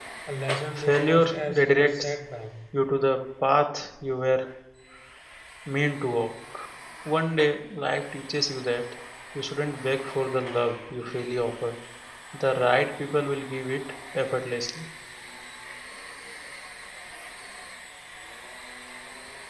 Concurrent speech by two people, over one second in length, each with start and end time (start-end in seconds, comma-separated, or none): 0.8-2.2